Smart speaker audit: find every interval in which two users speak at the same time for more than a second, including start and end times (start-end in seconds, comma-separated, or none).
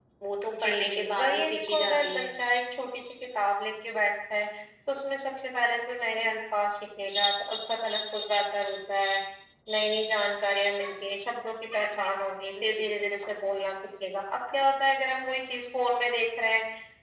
0.6-2.2